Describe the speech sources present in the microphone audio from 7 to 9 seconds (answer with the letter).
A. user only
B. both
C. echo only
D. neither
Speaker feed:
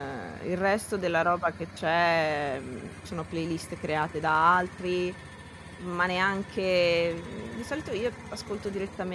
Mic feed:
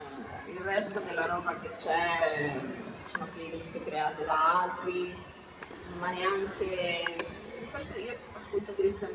C